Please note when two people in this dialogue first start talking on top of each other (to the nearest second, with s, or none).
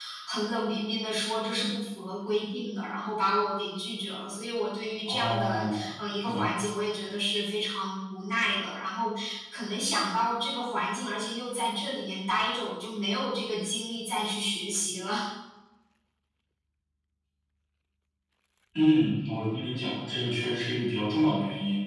5 s